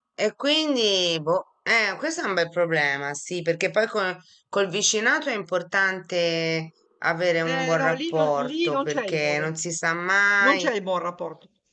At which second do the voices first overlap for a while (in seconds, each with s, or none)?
7.5 s